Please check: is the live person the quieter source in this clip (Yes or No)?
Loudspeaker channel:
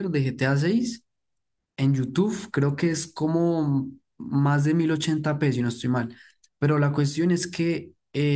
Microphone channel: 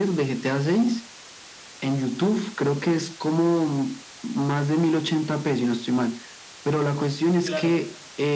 Yes